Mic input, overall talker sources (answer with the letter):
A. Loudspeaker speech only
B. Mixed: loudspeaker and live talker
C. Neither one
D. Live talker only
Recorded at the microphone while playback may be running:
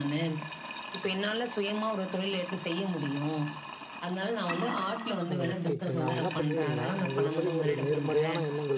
B